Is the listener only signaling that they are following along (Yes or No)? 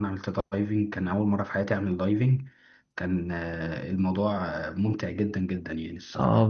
No